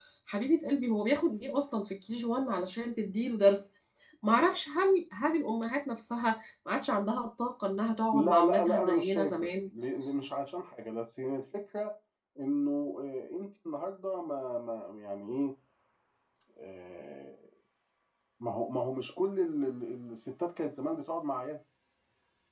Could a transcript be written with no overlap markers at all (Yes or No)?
No